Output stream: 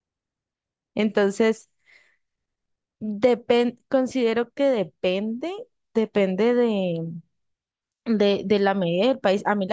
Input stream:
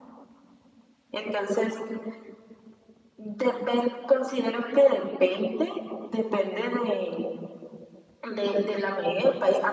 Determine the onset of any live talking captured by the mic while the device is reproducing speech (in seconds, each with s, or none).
none